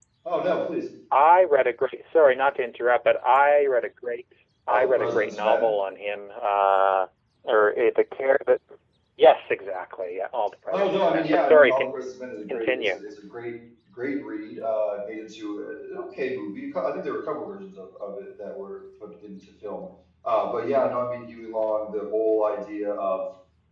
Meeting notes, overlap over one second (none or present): present